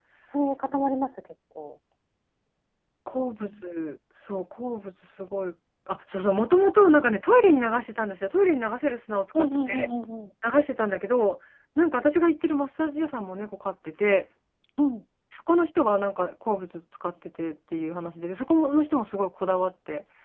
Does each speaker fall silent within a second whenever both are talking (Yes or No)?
Yes